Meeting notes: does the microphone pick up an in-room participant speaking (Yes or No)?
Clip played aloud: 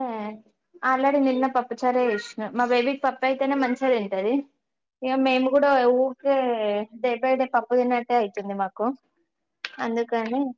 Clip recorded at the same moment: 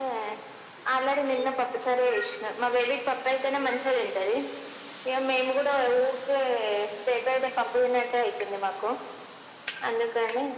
No